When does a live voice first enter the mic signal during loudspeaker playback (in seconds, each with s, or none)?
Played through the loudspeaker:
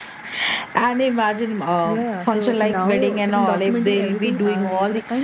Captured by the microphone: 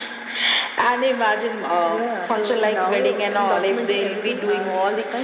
none